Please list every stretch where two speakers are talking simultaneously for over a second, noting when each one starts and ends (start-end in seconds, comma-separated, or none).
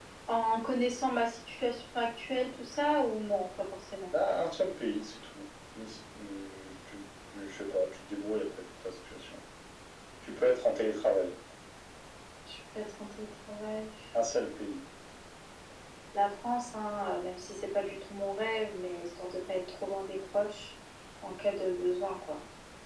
none